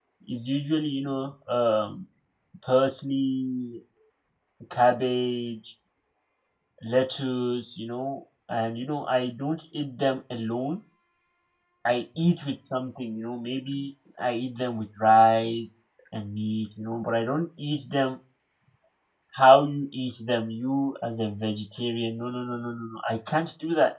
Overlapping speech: No

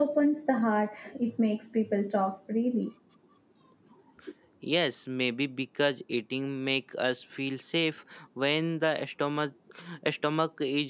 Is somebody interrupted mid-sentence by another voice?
No

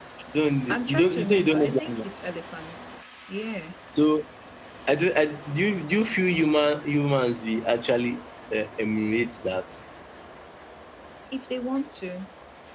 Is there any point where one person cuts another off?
Yes, from 0.7 s

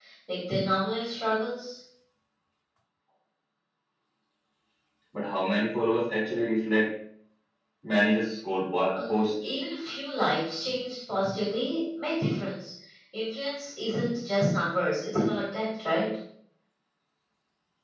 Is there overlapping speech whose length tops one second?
No

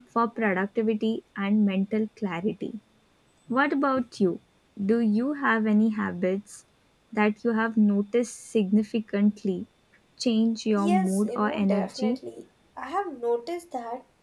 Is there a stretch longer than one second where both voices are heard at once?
Yes, from 10.8 s

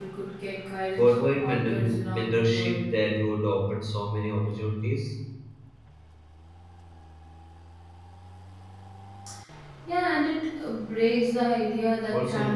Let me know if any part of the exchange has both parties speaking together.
Yes, from 1.0 s

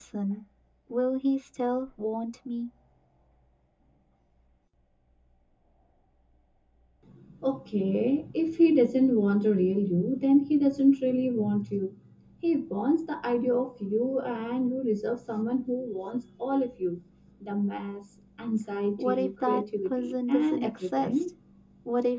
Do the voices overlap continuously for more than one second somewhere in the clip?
Yes, from 19.0 s

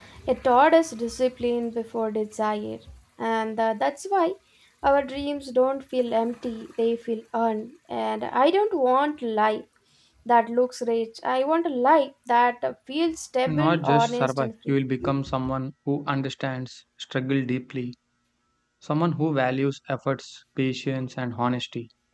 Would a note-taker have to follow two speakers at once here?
Yes, from 13.5 s

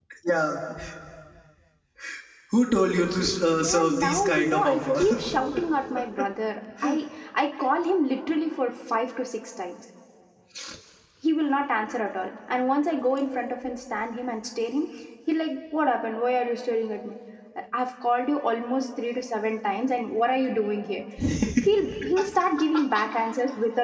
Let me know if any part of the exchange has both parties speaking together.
Yes, from 3.5 s

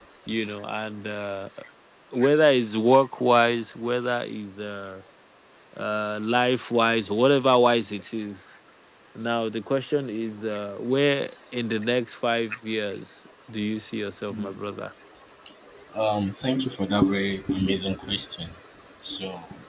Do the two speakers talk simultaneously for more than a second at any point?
No

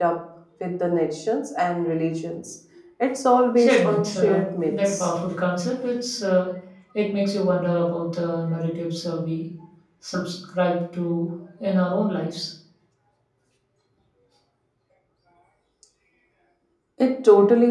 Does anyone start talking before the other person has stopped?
Yes, from 3.6 s

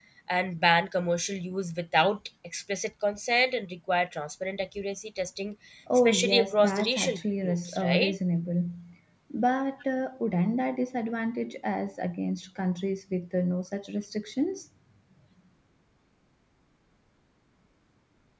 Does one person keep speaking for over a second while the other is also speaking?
Yes, from 6.0 s

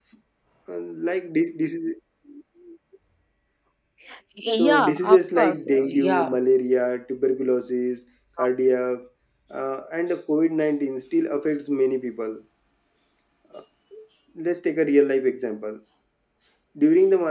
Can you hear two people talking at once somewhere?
Yes, from 4.6 s

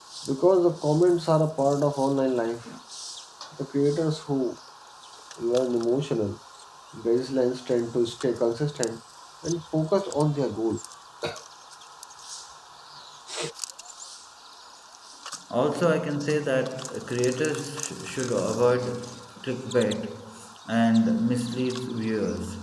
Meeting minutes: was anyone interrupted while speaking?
No

